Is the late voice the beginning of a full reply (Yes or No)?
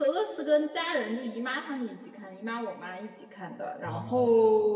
No